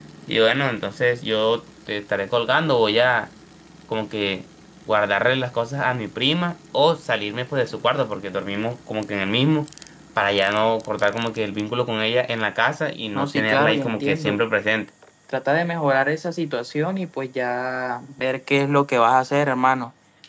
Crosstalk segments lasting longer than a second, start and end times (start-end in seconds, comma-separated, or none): 13.1-14.4